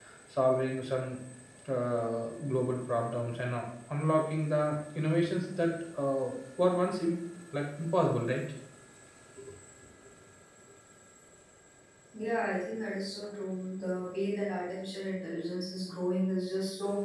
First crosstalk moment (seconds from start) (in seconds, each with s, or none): none